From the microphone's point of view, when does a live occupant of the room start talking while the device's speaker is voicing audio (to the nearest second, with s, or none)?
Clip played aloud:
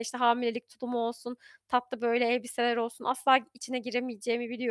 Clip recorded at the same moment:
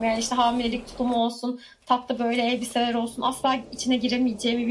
none